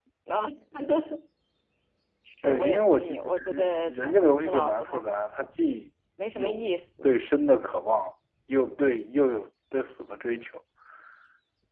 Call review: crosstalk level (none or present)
present